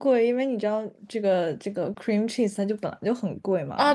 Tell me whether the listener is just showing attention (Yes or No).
No